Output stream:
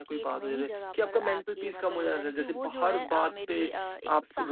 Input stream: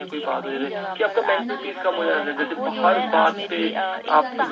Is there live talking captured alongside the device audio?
Yes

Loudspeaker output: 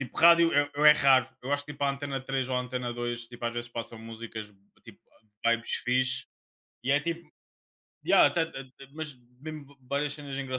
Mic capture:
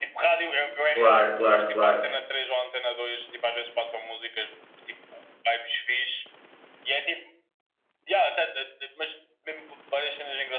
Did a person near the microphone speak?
Yes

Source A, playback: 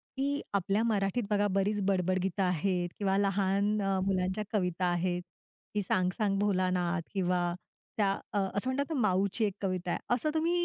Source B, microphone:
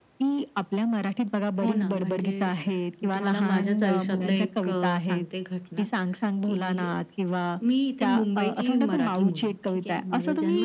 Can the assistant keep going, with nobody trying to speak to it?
No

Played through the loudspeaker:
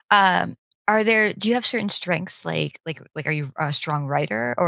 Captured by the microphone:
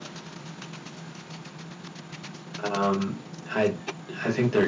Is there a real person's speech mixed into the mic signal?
Yes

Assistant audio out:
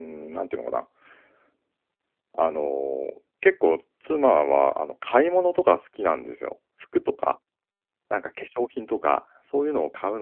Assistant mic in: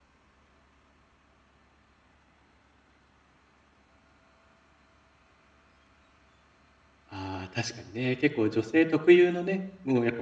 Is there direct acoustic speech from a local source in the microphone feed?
Yes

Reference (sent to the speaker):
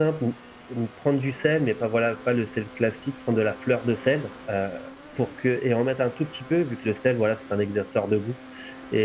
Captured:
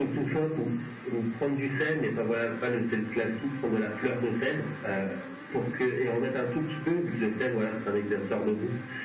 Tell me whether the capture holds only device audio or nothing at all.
Yes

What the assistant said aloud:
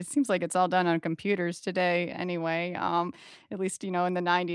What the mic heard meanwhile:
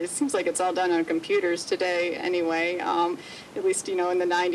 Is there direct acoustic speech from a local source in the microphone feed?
No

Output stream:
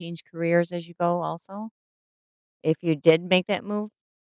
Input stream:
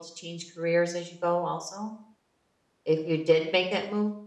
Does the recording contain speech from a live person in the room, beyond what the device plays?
No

